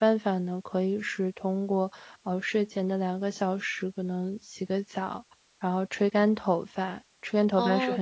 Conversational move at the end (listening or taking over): taking over